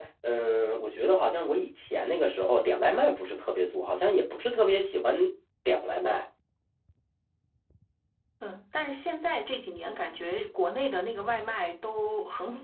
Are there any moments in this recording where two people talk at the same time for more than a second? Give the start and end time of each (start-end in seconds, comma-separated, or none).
none